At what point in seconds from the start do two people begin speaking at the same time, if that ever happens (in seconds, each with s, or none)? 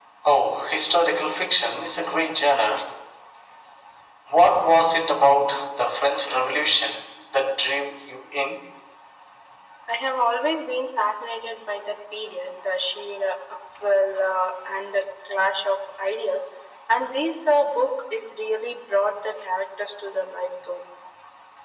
none